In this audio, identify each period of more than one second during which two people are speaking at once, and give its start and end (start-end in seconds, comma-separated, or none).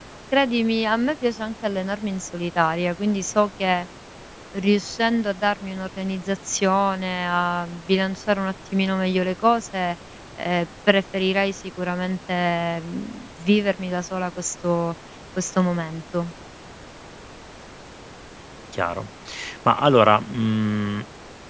none